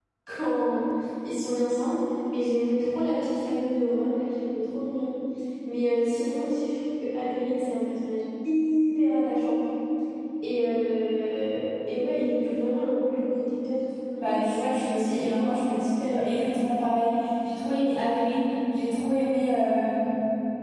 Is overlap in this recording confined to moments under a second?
No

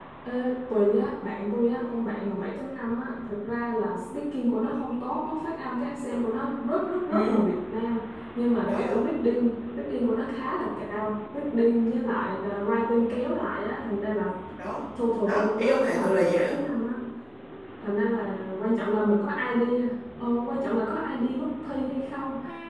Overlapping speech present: Yes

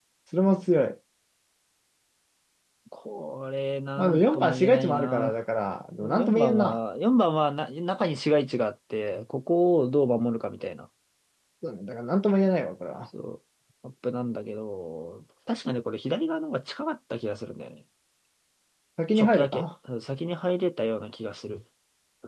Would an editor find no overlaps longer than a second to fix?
No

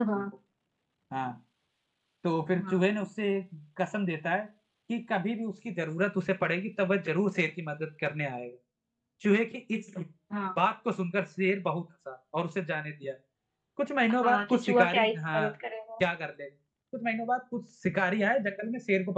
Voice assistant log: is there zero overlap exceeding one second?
No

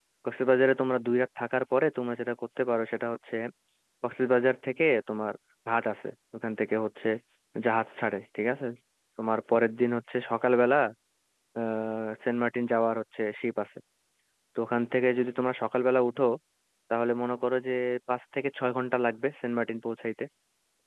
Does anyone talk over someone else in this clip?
No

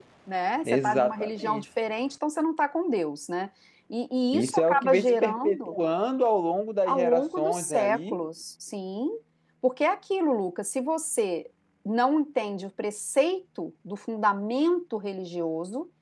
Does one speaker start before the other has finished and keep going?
Yes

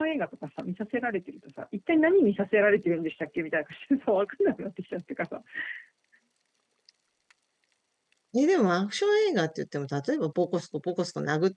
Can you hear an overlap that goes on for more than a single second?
No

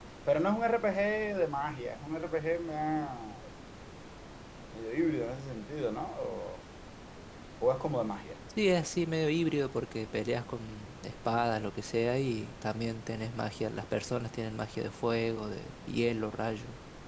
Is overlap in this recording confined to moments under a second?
Yes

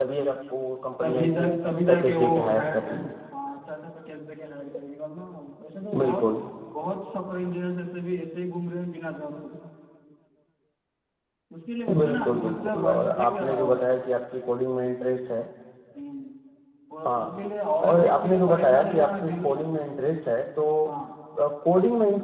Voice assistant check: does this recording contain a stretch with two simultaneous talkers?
Yes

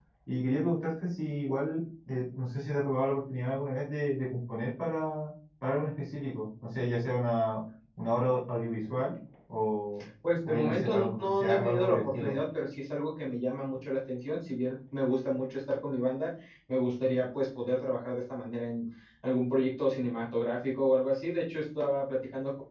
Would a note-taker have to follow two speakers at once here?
Yes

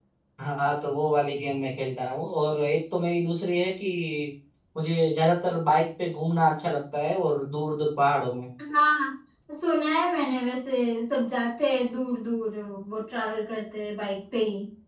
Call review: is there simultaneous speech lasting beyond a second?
No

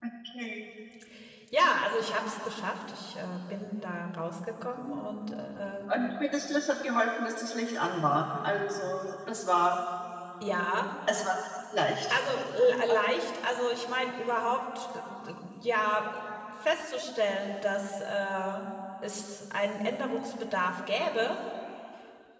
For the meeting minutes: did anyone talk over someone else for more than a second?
No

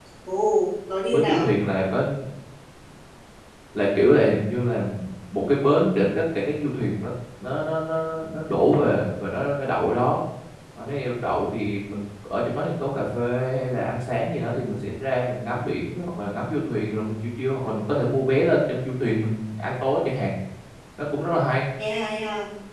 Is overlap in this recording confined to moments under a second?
Yes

